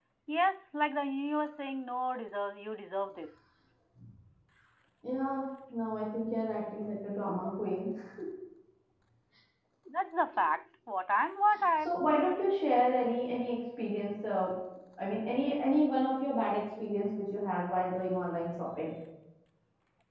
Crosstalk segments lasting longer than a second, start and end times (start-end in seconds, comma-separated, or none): none